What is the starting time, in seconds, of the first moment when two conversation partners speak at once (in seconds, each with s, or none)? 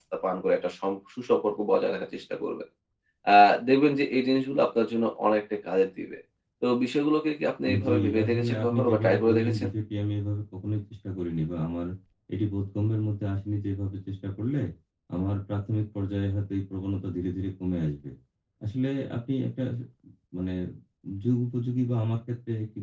7.7 s